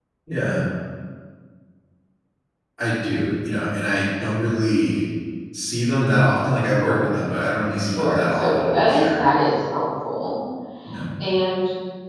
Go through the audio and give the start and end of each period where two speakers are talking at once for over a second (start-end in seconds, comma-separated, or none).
8.0-9.2